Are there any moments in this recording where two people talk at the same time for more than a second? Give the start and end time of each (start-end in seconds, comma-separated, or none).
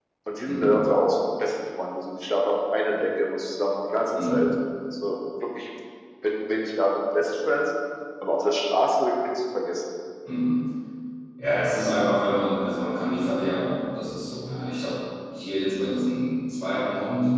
none